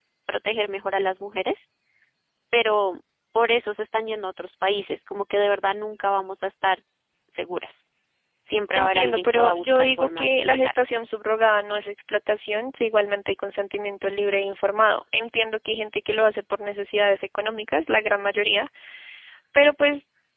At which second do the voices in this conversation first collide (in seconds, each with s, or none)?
8.7 s